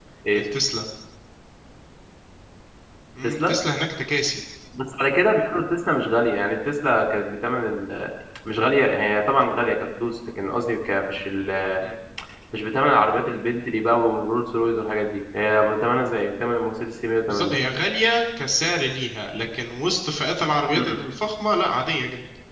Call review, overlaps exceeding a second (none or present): none